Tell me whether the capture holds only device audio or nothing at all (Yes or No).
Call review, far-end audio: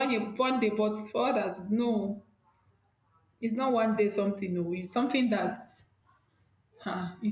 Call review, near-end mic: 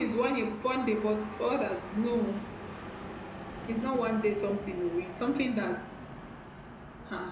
Yes